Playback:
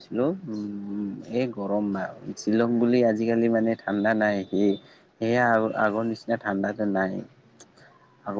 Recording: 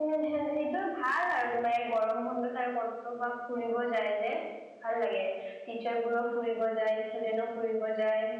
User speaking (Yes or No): Yes